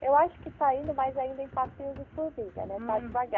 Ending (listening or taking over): taking over